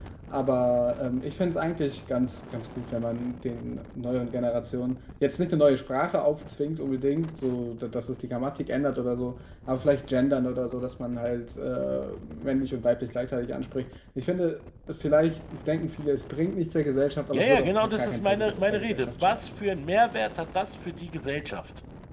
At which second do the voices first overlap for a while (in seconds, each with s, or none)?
17.3 s